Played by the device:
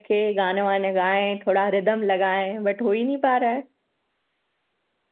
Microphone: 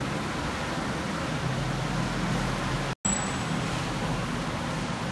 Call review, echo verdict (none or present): none